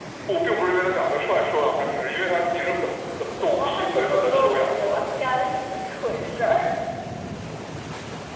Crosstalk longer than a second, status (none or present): present